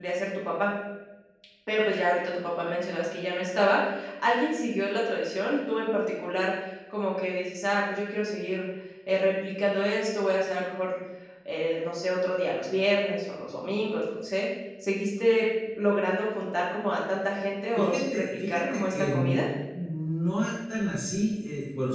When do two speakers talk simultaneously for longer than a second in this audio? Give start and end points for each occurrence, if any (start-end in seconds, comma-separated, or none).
17.8-19.4